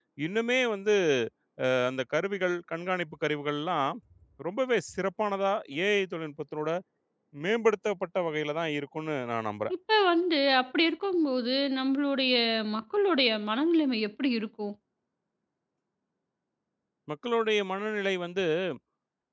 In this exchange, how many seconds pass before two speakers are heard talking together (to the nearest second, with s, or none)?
none